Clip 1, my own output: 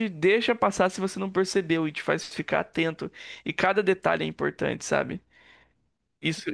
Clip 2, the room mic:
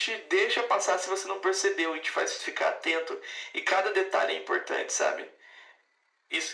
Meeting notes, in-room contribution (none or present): none